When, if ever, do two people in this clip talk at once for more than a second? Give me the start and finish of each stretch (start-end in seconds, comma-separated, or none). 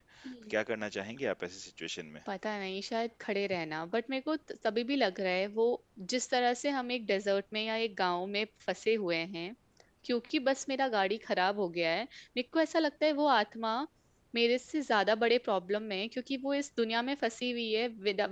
none